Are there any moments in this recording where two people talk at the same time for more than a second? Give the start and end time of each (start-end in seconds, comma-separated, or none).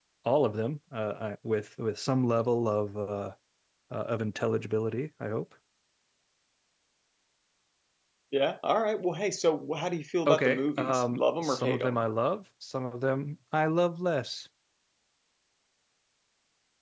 10.2-12.0